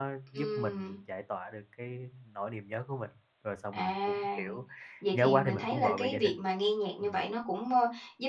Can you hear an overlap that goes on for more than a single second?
Yes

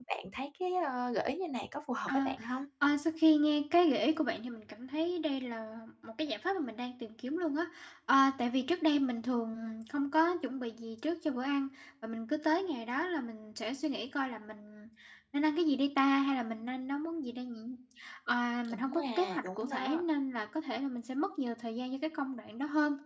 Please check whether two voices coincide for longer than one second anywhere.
Yes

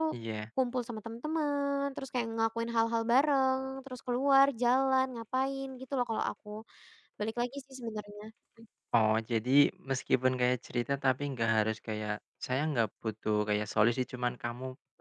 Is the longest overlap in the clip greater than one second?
No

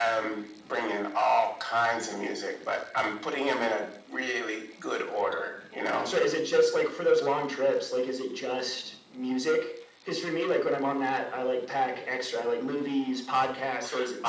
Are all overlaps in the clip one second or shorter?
Yes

